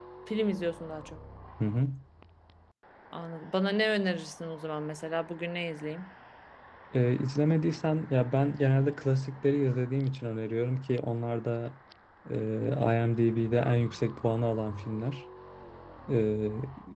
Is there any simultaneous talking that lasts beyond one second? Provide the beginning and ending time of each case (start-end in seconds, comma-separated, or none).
none